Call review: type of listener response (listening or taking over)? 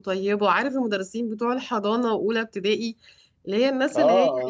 taking over